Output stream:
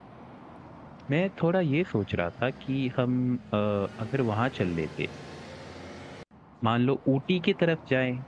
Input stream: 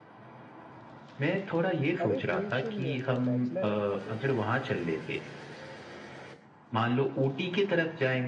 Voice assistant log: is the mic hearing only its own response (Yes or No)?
No